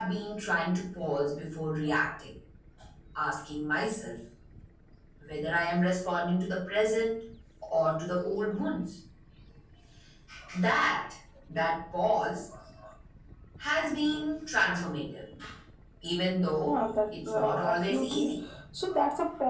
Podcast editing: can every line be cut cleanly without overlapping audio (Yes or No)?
No